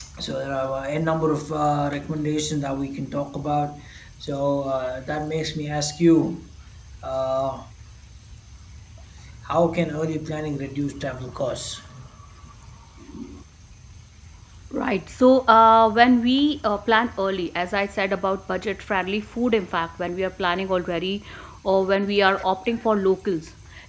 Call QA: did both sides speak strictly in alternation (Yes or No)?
Yes